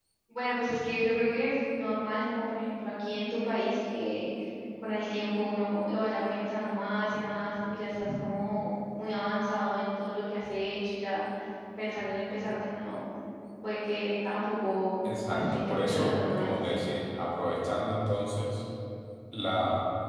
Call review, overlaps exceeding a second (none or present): present